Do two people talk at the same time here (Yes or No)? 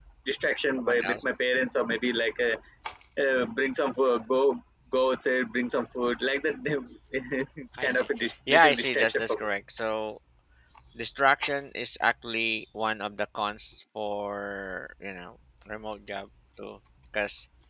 Yes